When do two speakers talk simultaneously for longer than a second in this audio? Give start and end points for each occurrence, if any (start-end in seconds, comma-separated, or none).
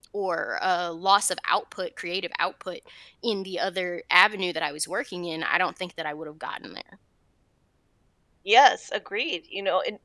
none